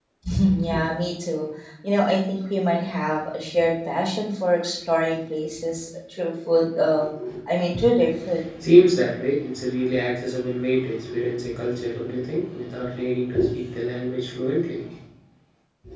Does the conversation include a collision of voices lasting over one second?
No

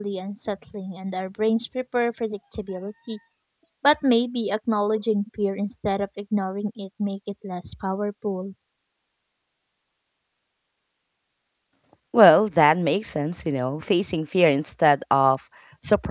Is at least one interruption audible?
No

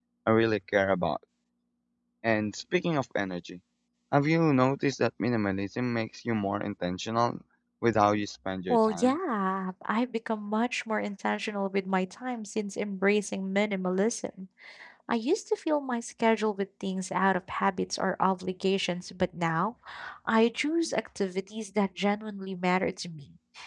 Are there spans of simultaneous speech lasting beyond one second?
No

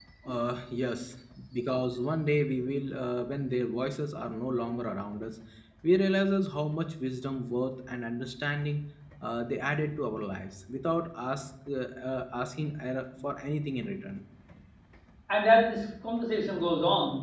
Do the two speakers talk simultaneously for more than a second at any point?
No

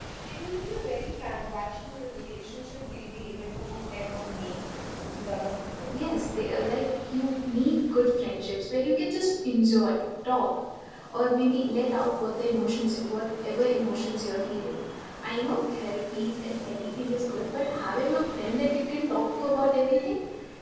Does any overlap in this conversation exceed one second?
No

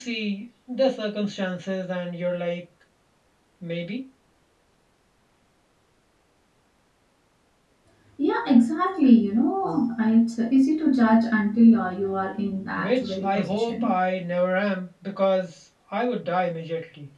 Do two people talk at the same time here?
Yes, from 12.8 s

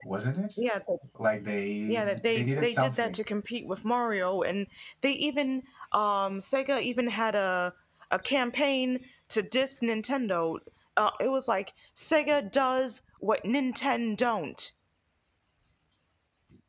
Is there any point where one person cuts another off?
Yes, from 1.9 s

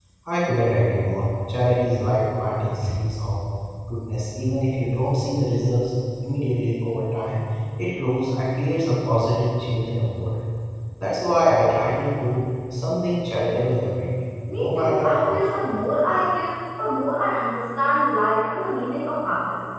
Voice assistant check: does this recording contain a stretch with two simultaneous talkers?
Yes, from 14.5 s

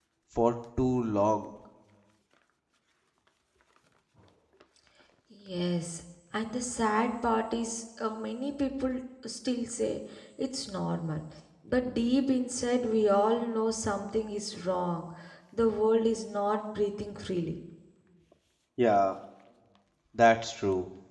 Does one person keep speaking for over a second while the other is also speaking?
No

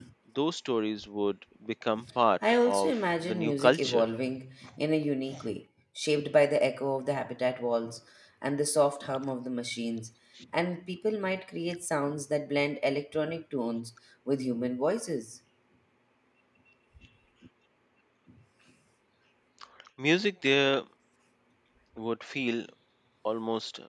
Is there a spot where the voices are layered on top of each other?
Yes, from 2.4 s

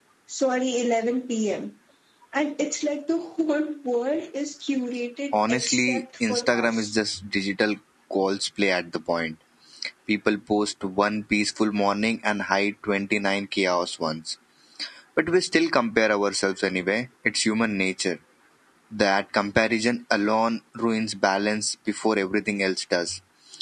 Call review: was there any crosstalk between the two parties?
Yes, from 5.3 s

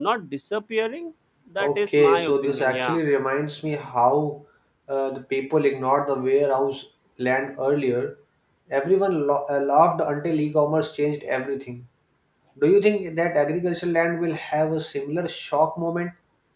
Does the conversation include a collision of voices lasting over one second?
Yes, from 1.6 s

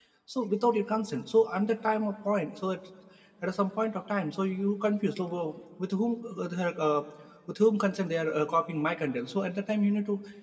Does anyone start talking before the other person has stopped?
No

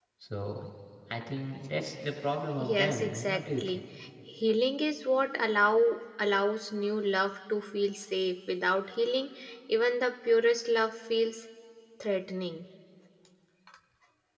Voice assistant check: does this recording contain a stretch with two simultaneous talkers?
Yes, from 2.6 s

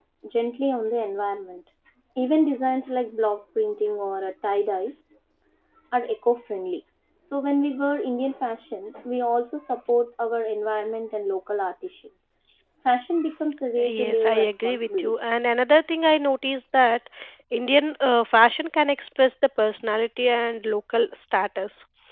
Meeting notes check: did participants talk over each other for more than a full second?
Yes, from 13.8 s

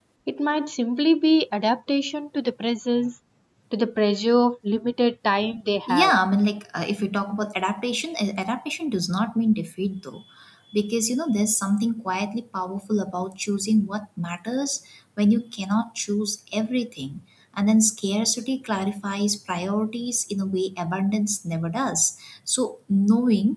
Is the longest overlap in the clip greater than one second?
No

